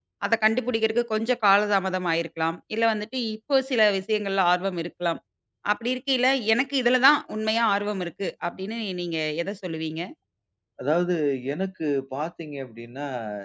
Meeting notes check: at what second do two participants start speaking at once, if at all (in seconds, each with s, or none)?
none